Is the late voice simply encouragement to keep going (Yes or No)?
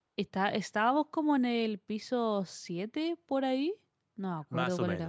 No